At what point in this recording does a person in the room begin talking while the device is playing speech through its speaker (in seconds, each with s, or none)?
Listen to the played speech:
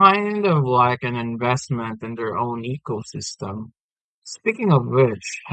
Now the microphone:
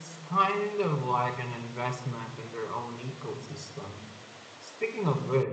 none